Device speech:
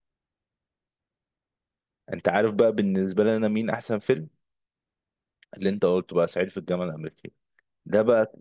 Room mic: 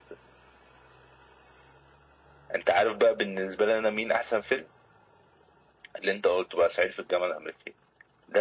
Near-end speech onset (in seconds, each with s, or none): none